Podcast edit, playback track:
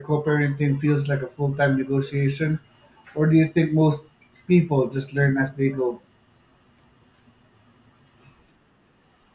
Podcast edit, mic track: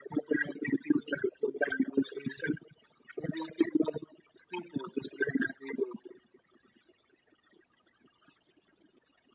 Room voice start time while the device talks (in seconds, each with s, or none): none